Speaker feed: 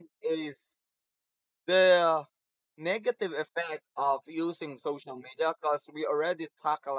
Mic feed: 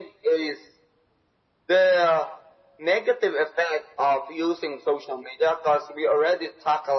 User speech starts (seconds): none

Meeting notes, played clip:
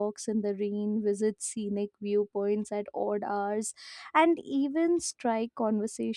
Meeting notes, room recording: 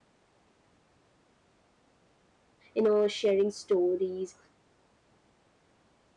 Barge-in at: 2.8 s

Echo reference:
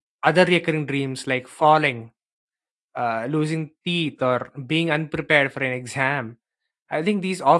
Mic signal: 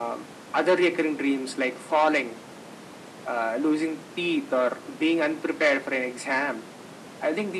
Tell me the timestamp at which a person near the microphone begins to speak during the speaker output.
none

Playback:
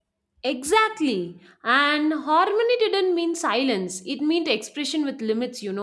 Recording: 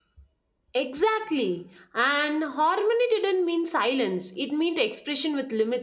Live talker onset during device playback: none

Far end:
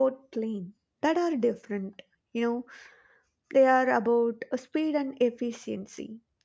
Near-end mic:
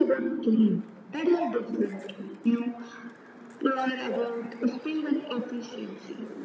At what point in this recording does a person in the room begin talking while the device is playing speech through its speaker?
none

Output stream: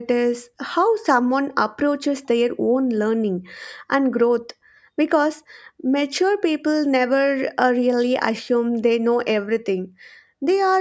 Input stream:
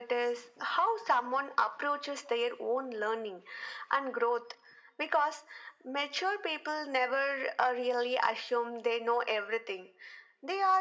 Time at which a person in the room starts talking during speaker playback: none

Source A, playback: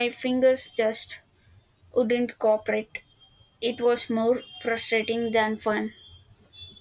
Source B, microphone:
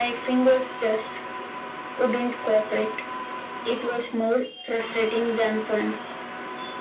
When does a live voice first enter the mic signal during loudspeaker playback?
none

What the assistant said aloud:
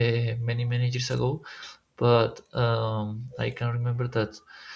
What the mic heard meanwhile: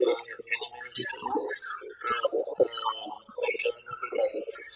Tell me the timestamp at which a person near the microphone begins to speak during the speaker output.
none

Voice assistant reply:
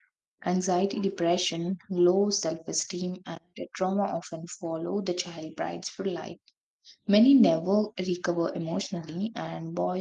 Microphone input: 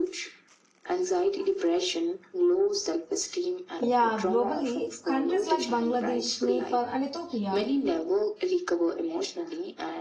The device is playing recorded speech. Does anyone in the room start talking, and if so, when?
3.8 s

